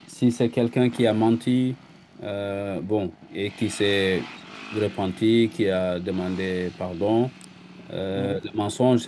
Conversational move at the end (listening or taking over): listening